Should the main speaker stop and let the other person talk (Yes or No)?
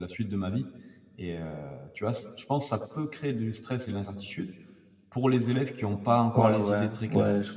Yes